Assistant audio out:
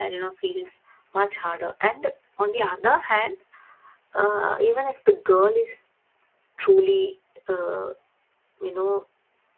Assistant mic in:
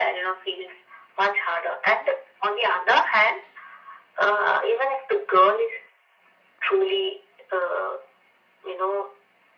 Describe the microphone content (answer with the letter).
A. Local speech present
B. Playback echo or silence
B